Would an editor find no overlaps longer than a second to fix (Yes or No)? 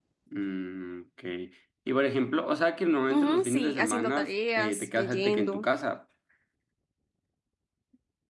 No